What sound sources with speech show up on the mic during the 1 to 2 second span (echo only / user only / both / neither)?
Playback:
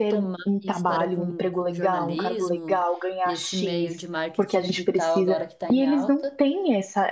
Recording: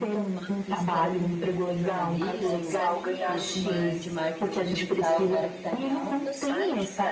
echo only